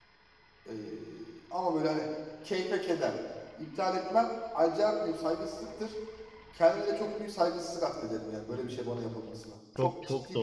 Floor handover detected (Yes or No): Yes